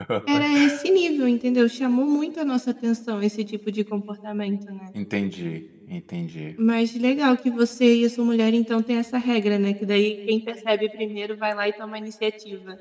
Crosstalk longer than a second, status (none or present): none